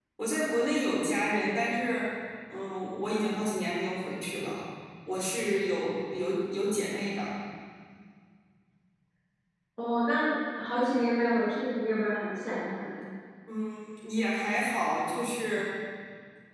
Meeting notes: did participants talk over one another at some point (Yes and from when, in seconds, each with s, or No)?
No